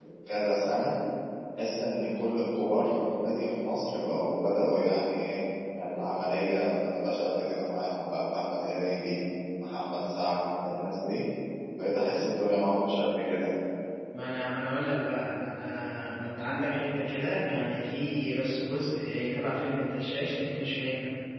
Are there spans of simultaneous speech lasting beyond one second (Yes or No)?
No